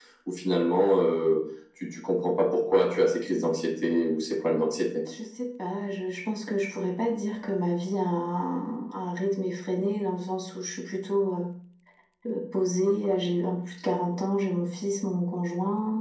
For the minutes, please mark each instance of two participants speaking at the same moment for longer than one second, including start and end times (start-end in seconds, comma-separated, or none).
none